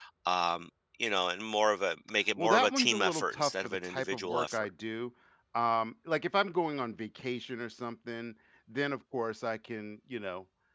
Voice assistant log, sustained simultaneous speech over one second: present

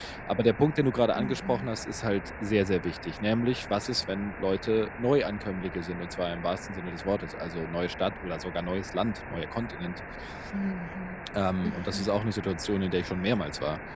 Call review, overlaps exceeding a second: none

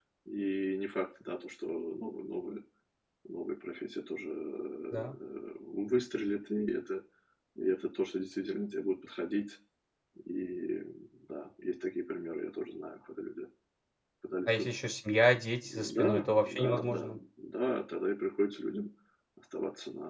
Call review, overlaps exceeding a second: present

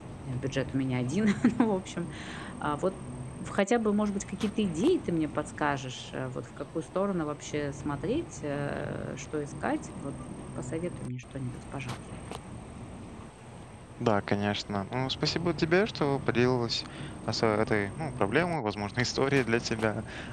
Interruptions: none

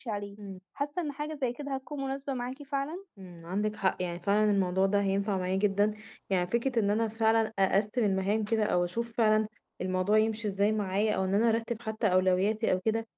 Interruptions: none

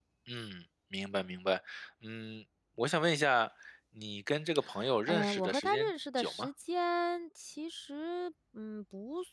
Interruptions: present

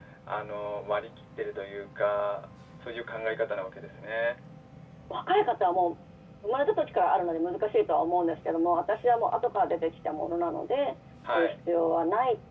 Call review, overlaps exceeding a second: none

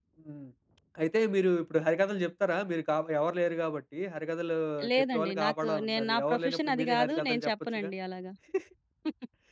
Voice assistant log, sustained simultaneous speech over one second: present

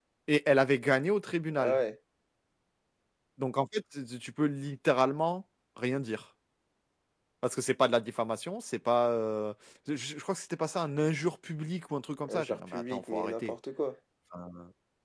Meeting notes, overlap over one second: present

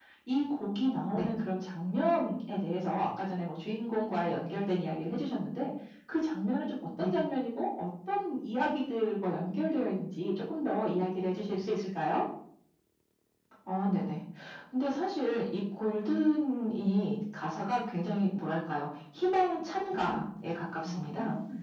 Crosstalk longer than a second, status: none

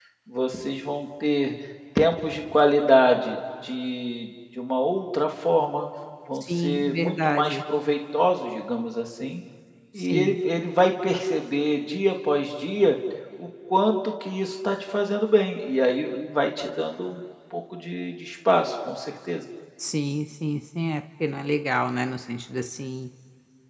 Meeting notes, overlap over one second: present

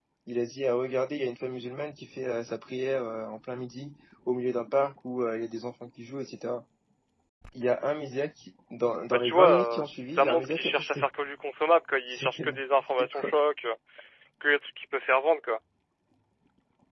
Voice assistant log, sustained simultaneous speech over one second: present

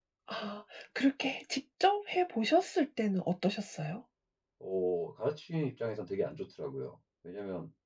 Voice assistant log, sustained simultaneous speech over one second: none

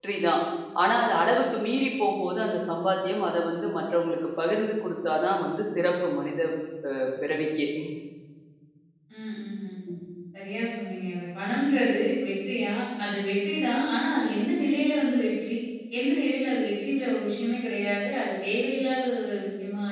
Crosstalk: none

